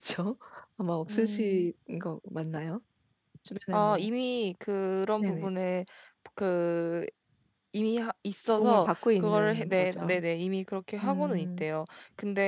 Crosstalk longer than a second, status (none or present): present